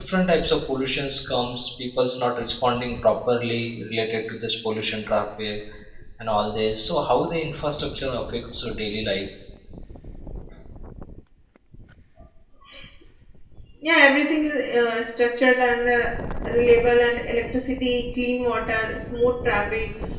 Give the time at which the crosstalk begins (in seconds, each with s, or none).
none